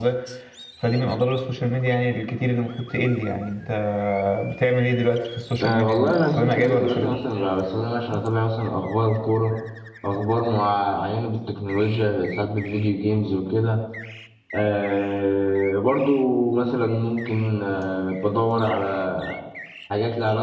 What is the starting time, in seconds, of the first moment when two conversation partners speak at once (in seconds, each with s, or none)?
5.6 s